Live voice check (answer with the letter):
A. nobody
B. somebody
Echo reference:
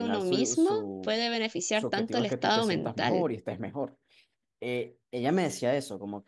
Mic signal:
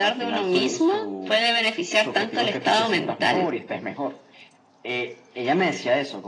A